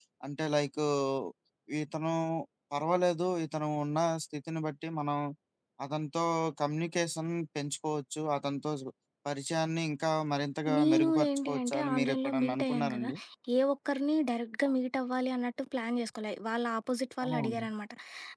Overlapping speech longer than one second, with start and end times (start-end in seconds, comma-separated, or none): 10.8-13.1